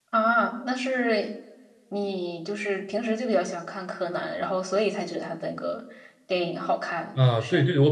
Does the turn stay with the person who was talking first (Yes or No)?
No